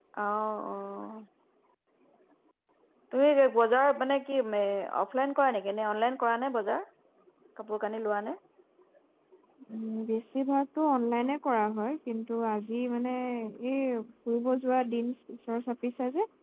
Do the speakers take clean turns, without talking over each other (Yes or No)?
Yes